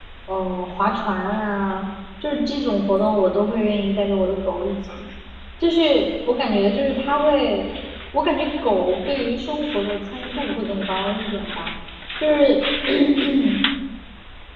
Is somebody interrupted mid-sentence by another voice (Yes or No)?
No